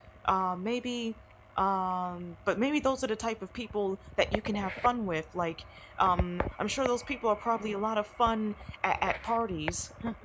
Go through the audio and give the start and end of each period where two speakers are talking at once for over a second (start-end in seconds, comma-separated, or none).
none